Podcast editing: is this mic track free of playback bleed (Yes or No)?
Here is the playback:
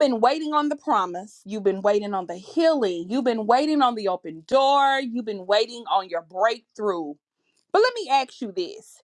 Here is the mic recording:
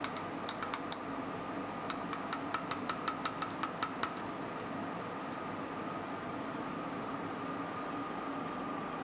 Yes